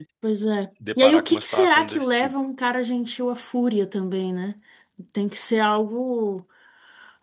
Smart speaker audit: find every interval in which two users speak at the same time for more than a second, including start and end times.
1.0-2.3

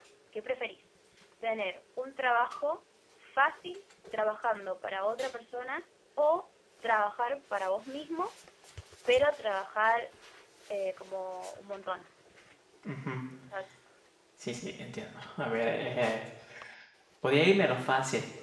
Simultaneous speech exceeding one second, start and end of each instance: none

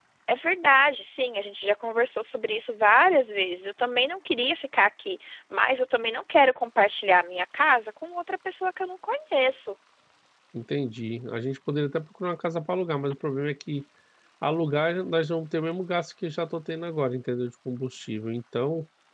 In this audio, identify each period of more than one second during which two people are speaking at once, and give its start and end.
none

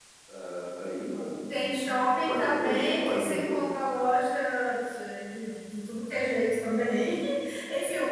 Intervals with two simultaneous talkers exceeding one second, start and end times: 2.3-3.6

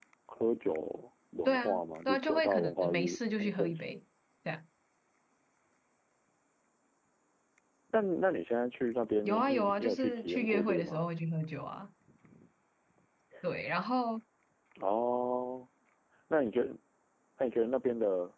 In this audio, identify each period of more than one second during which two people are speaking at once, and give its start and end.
1.4-3.9, 9.2-11.0

